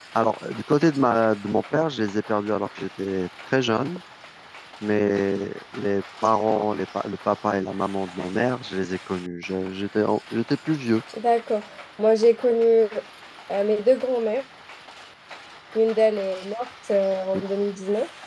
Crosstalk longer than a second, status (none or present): none